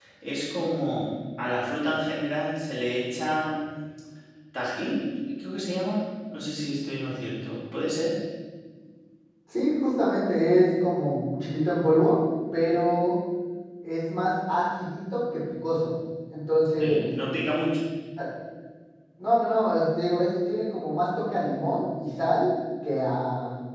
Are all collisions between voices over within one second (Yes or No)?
Yes